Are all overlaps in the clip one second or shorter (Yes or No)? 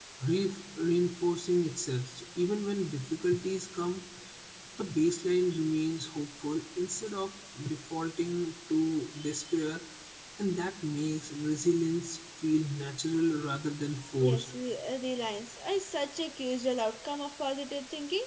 Yes